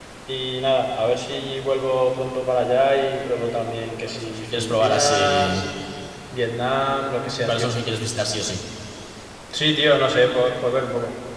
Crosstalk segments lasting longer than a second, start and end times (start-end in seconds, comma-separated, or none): 4.1-5.6